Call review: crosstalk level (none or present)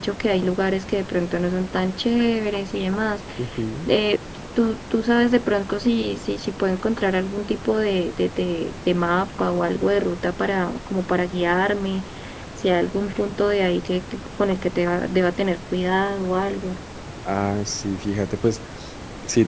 none